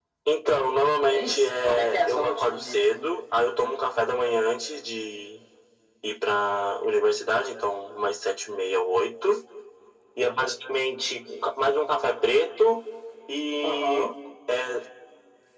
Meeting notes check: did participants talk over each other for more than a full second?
Yes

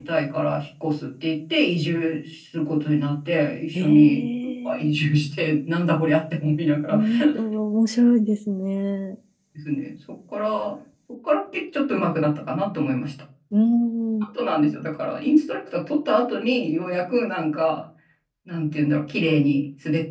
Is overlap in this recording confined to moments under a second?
Yes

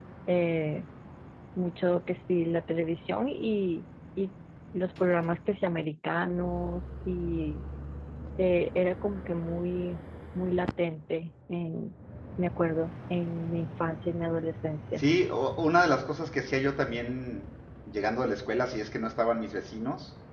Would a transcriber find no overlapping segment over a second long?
Yes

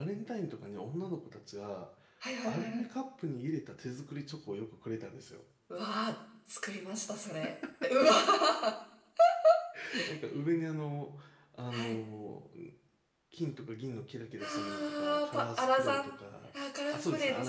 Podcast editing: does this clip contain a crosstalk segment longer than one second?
Yes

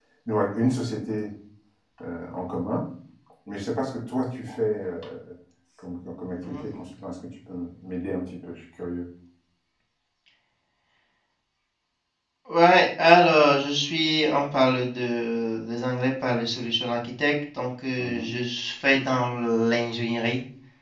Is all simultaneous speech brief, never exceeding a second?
Yes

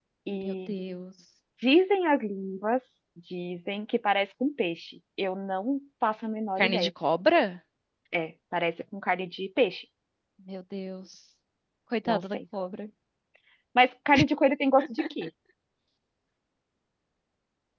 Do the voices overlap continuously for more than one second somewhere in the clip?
No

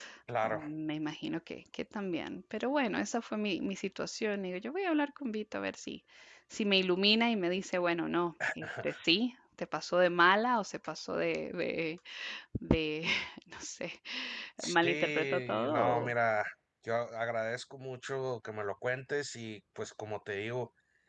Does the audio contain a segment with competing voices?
Yes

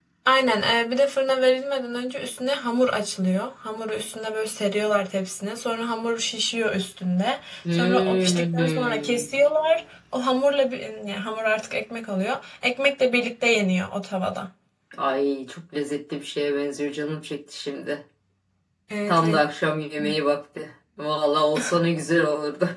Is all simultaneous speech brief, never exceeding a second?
No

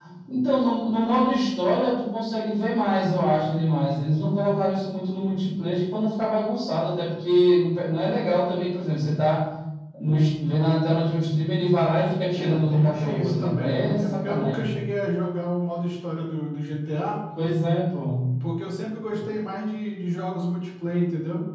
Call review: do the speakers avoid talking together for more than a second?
No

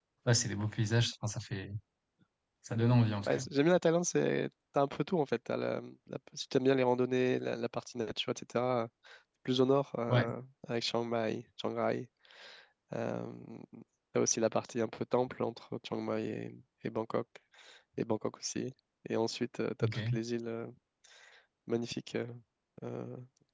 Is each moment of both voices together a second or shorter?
Yes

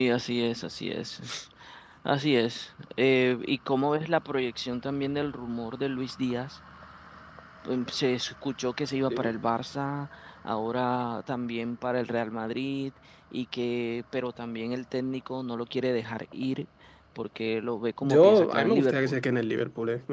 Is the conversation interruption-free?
No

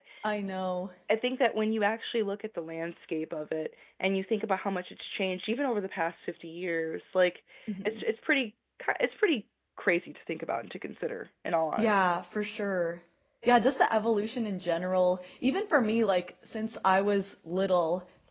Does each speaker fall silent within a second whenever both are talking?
Yes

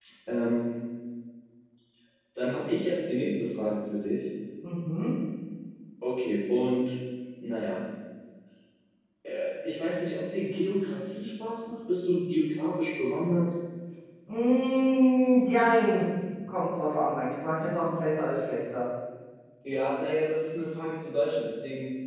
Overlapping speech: No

